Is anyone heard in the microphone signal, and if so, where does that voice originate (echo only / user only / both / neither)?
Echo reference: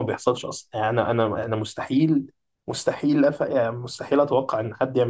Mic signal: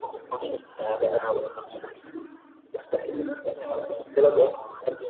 echo only